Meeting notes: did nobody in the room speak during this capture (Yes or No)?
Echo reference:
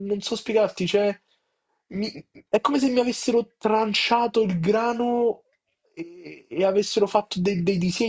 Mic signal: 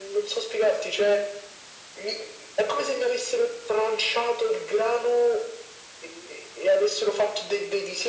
Yes